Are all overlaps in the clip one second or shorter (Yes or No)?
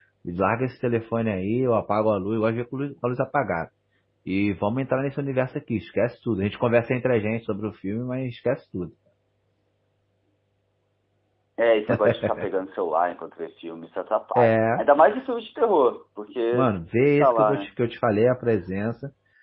Yes